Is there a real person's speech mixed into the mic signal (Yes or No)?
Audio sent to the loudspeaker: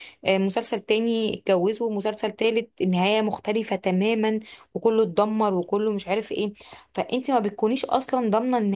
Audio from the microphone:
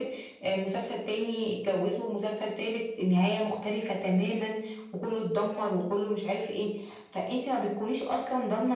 No